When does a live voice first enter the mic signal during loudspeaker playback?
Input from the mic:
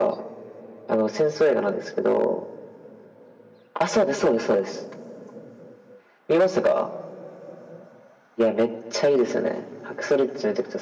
none

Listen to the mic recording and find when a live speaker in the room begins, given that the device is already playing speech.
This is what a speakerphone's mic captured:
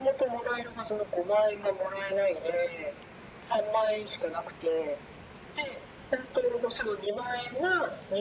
none

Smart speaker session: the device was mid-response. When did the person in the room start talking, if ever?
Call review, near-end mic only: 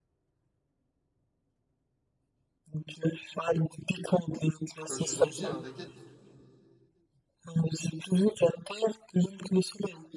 4.9 s

